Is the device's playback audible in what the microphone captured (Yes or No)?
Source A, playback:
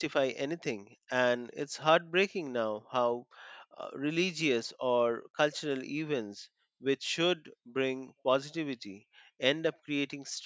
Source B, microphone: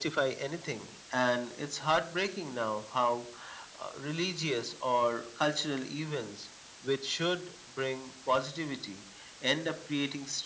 Yes